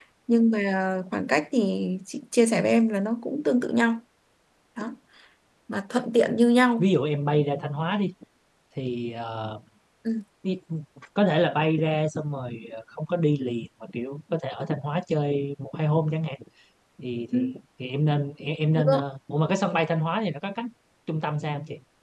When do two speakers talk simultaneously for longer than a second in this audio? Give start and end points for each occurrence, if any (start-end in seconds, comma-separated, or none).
none